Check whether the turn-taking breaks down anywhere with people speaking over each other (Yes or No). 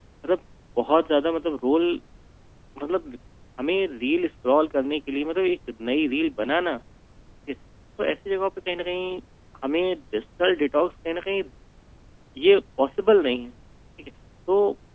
No